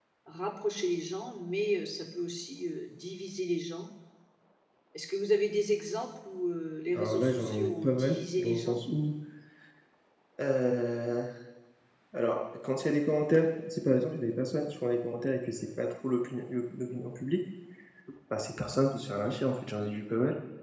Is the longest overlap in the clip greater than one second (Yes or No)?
Yes